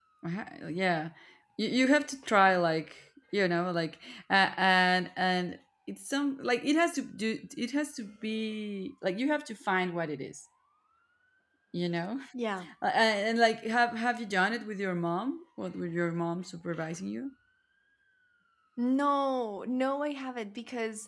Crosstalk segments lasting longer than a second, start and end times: none

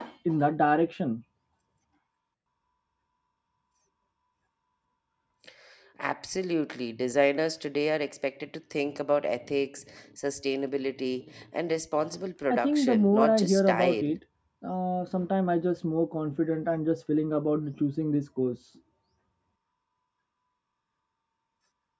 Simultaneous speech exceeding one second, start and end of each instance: 12.5-14.1

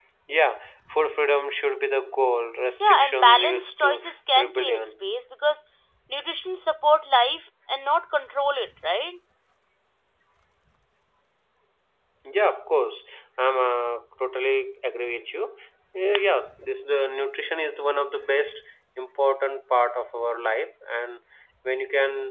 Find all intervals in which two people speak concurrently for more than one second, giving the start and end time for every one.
2.8-5.0

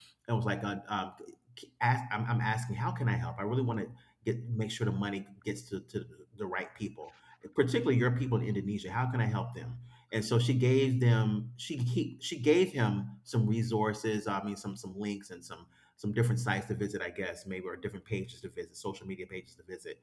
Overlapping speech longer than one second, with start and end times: none

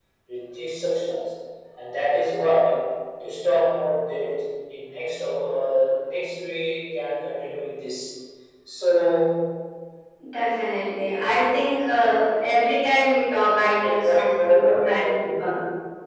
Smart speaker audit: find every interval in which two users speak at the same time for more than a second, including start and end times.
13.8-15.5

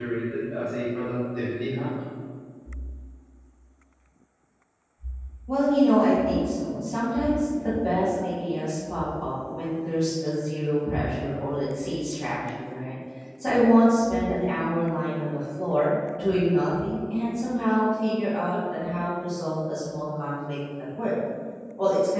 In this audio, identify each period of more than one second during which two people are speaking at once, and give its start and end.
none

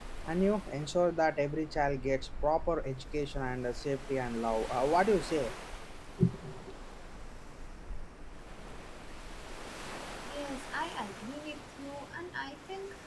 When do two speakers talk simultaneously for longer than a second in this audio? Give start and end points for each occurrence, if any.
none

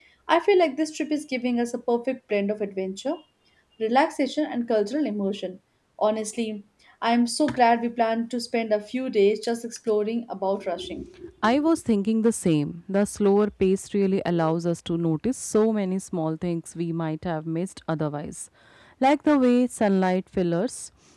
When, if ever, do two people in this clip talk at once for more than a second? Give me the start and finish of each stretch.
none

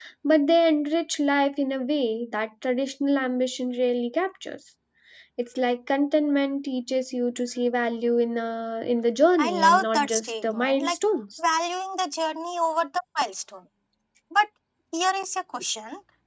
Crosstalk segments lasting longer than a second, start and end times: 9.4-11.0

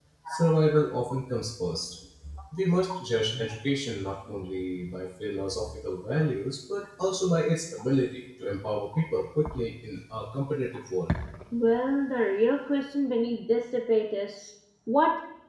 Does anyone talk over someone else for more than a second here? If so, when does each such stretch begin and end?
none

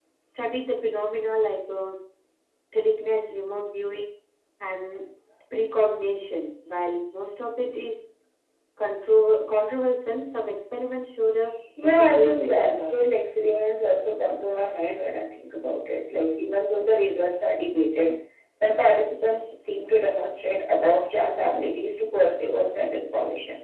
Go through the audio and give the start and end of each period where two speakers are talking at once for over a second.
11.8-13.0

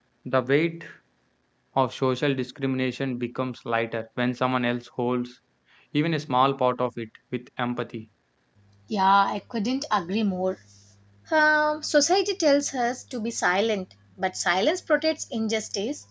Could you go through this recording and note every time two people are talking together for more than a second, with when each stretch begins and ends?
none

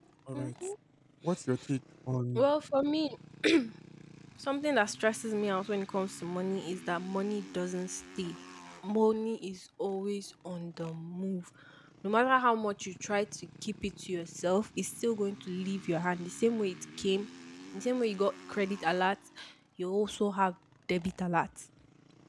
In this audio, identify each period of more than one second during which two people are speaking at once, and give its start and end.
none

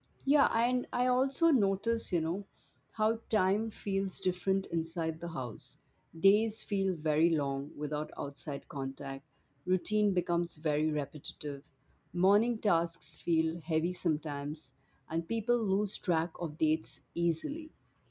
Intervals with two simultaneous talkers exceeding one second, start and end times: none

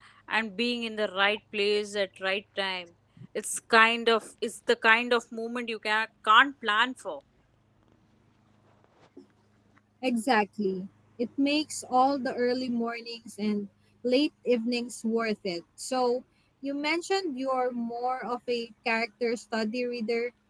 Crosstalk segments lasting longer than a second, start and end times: none

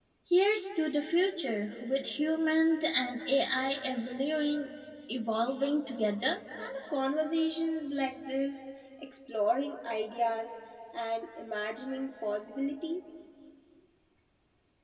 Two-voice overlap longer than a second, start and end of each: none

